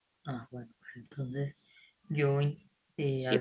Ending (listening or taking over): taking over